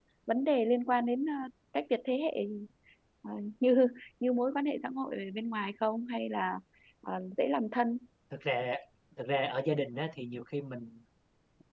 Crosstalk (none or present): none